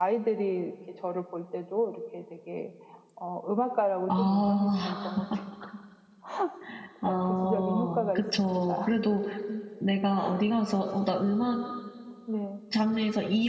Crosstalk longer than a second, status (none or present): present